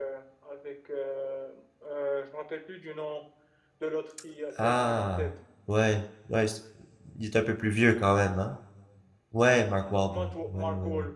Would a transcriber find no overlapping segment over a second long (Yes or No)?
No